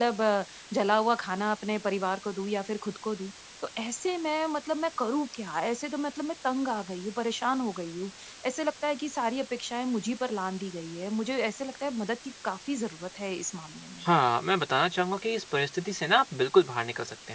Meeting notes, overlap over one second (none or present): none